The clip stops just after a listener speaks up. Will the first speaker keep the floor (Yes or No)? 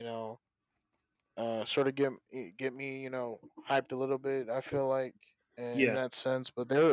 Yes